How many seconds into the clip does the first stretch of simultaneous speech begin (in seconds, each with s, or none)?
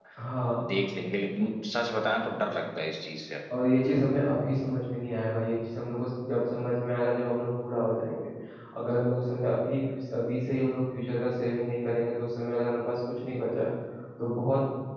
none